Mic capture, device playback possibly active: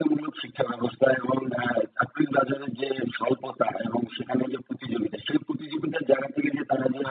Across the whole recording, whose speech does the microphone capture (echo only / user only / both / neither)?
echo only